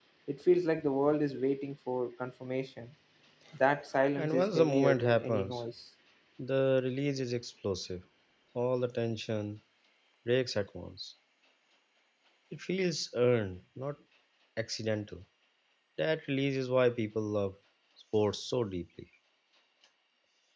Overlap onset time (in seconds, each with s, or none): 4.2 s